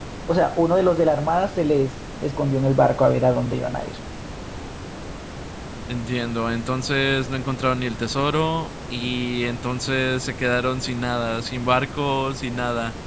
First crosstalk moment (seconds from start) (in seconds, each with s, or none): none